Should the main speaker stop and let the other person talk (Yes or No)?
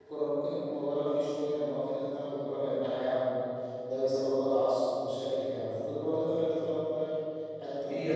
No